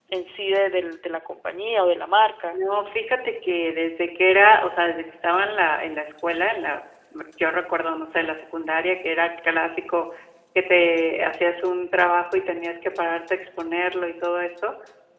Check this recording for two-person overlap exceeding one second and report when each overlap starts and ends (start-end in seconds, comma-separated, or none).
none